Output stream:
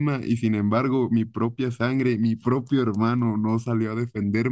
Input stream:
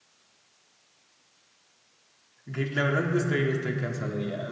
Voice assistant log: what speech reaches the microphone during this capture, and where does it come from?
user only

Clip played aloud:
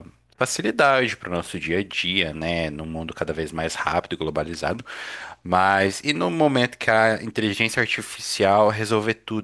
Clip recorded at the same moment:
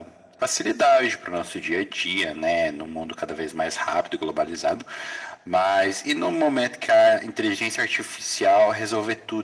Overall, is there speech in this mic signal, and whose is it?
echo only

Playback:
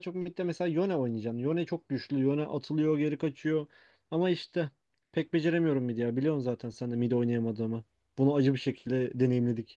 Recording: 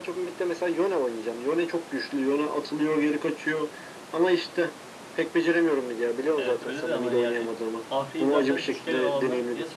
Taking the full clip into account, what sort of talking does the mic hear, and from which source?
both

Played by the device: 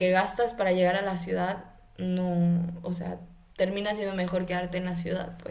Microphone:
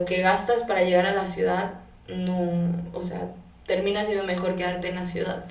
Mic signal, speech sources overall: echo only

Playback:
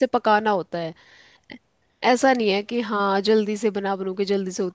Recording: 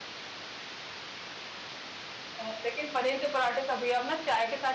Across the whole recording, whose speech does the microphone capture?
user only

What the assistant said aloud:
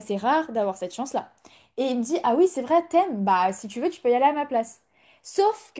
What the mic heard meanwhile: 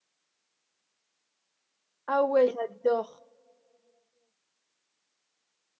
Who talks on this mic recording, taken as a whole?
user only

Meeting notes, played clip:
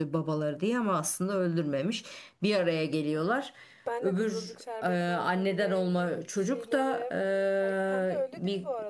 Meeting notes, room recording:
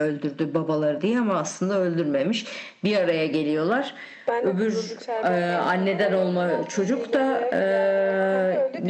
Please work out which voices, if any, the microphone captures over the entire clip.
both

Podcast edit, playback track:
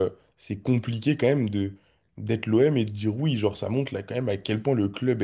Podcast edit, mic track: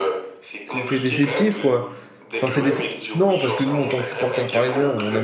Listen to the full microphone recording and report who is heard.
both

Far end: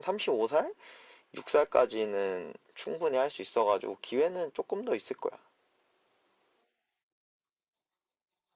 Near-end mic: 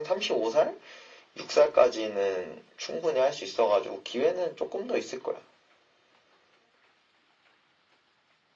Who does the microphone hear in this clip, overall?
echo only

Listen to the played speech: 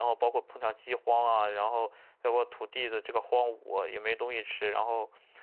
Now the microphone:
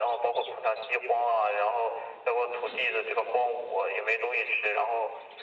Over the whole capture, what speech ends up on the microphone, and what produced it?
echo only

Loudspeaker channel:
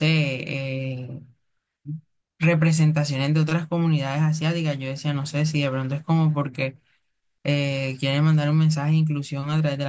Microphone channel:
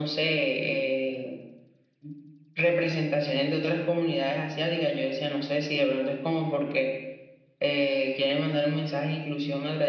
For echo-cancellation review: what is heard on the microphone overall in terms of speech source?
echo only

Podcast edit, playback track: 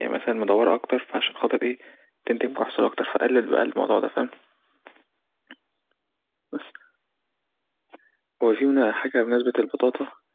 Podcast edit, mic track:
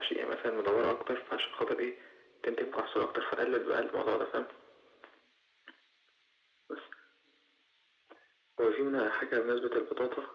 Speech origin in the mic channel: echo only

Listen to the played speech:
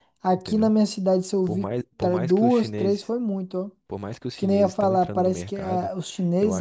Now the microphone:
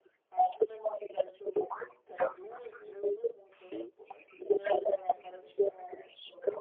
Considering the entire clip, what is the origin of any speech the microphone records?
both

